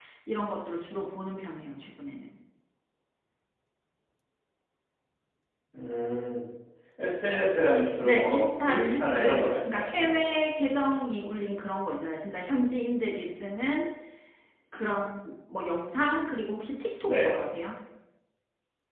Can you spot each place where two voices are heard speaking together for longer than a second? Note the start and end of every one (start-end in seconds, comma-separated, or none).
8.0-10.2